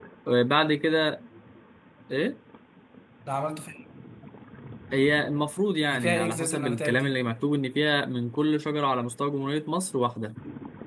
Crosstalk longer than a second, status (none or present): present